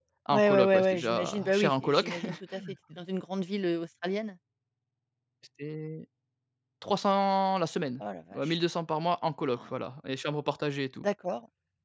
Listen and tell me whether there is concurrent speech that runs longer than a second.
Yes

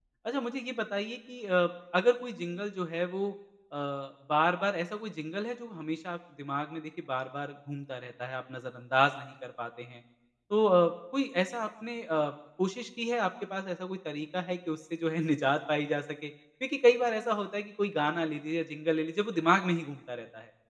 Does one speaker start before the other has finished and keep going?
No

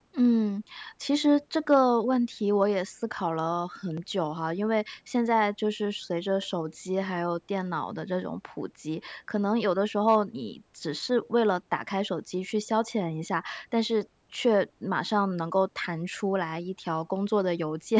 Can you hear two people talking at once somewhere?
No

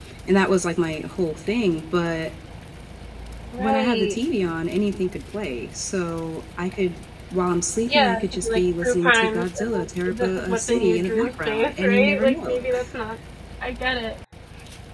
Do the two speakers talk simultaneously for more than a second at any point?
Yes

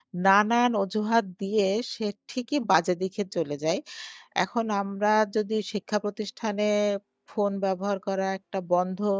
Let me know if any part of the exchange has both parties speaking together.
No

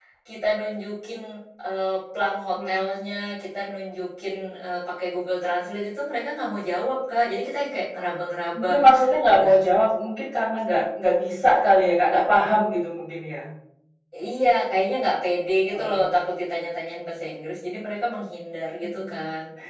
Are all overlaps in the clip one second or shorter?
Yes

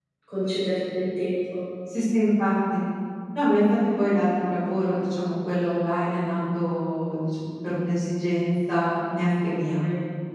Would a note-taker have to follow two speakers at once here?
No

